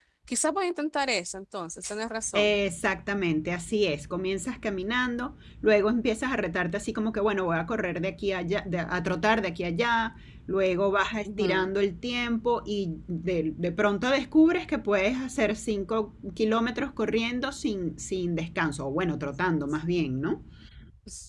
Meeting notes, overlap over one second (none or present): none